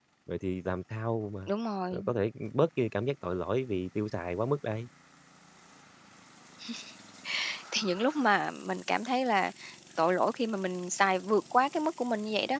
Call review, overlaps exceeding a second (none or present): none